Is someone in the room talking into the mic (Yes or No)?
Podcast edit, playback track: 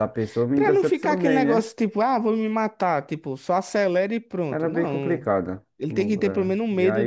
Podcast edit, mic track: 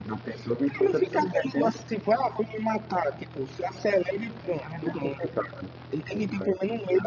No